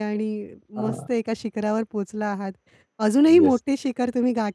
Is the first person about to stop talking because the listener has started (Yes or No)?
No